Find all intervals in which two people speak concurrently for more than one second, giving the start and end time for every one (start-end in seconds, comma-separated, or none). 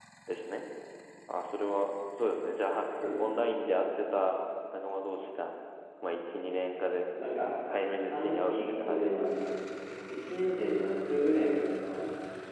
8.1-9.3